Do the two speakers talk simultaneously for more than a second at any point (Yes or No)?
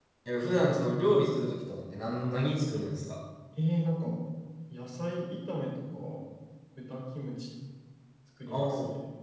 No